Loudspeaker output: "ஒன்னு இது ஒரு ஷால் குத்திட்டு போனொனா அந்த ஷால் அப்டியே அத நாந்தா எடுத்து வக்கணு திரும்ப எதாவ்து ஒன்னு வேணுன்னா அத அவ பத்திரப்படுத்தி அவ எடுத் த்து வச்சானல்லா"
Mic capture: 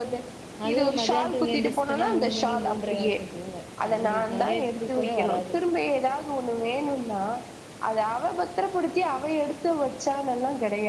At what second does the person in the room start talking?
1 s

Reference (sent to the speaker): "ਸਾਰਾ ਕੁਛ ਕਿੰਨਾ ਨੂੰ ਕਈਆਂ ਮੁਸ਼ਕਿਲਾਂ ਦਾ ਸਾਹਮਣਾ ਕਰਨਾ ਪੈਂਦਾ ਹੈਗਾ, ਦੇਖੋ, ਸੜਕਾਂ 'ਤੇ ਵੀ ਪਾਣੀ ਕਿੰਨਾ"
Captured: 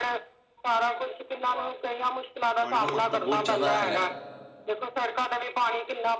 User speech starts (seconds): 3 s

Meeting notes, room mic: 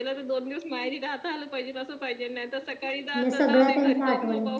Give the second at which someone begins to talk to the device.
3 s

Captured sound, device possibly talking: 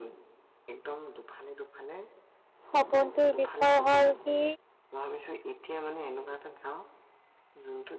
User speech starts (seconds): 3 s

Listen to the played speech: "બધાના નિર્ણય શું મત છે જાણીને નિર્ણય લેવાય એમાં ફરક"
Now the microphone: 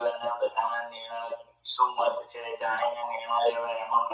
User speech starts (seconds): none

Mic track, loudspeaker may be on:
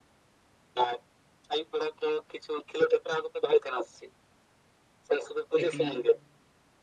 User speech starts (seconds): 6 s

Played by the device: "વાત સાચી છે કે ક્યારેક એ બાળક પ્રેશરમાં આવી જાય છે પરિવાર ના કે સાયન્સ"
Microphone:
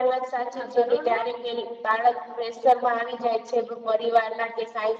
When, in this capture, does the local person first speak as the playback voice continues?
1 s

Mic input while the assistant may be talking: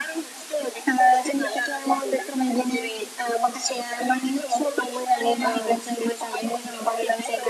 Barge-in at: 5 s

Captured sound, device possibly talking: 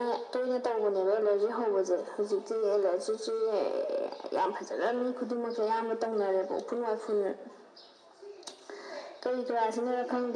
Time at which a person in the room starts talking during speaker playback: none

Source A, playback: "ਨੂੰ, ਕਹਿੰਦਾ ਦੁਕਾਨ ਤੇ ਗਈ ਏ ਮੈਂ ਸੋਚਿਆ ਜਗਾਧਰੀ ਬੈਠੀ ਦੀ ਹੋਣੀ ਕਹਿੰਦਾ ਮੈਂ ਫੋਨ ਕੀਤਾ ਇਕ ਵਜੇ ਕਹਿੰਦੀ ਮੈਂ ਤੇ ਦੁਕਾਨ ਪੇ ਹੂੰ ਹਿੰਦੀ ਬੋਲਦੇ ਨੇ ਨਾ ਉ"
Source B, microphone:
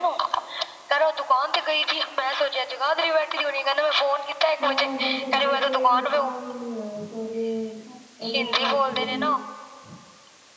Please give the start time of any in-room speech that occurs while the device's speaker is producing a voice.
5 s

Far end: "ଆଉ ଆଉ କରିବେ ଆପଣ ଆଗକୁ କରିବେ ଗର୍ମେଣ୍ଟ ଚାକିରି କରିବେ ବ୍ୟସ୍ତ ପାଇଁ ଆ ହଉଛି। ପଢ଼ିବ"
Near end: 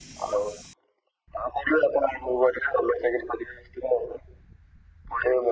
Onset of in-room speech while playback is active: none

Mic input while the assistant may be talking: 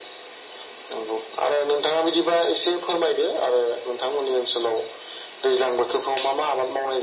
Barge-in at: none

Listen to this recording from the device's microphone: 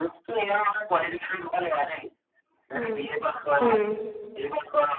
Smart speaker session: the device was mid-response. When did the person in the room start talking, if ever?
3 s

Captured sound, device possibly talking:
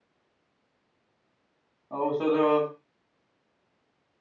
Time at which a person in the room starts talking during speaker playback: 2 s

